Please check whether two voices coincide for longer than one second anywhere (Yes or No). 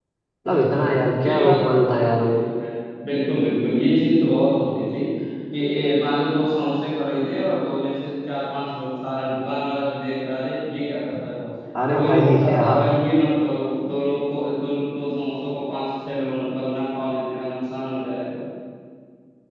Yes